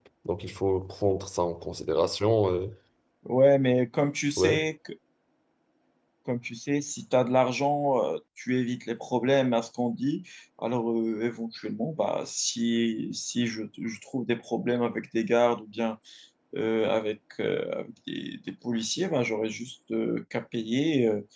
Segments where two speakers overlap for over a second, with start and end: none

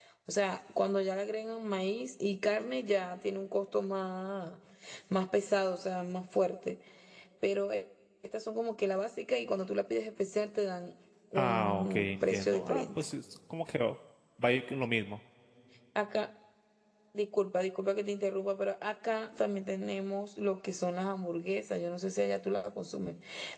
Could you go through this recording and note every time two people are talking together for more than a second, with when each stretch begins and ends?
11.4-13.0

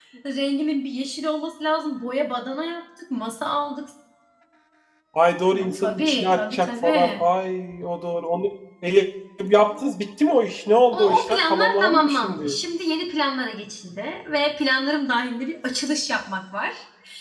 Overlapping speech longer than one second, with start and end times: 5.6-7.2, 10.9-12.6

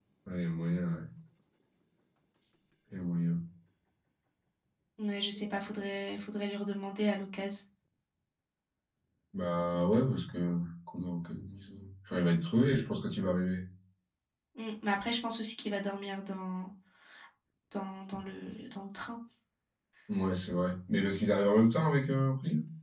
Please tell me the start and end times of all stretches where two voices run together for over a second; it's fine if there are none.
none

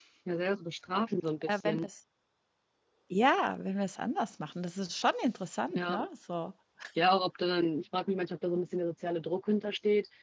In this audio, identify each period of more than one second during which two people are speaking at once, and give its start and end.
none

